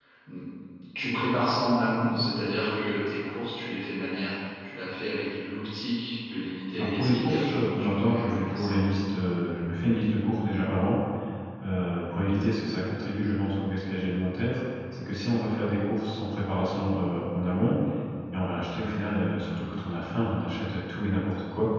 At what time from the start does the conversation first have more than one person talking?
6.8 s

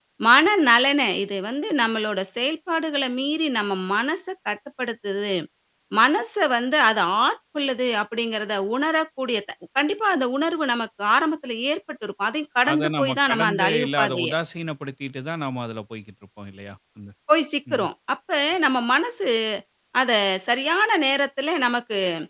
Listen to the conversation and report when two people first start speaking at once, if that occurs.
12.6 s

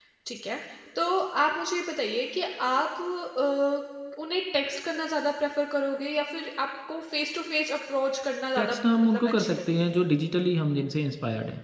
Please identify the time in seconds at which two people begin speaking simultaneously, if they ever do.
8.6 s

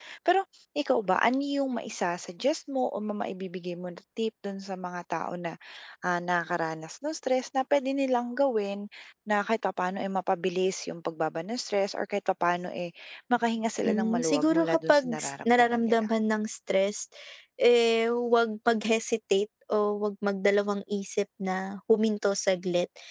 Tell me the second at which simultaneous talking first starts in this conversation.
13.8 s

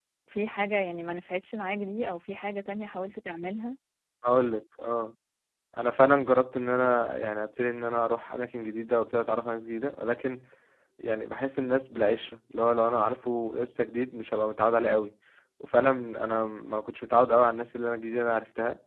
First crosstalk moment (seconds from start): none

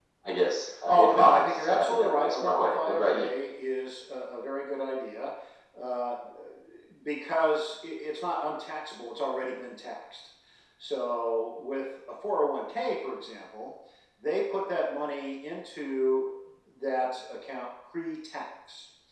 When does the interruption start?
0.9 s

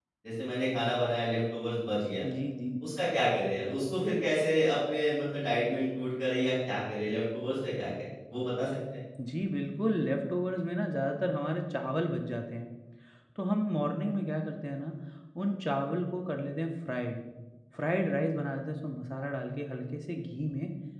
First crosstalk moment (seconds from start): none

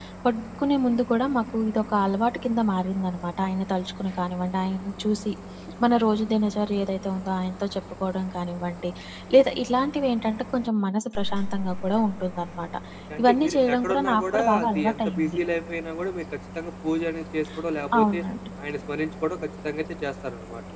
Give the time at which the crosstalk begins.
13.2 s

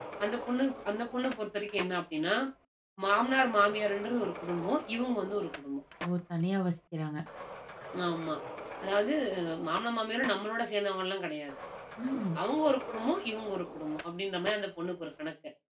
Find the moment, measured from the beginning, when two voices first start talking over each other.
none

